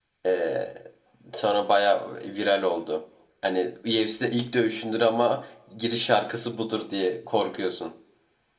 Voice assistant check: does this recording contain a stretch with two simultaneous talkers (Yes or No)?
No